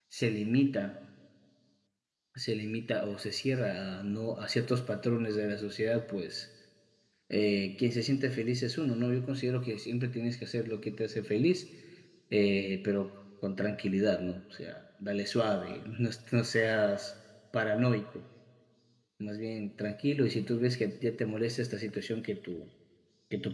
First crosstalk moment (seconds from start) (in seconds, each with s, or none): none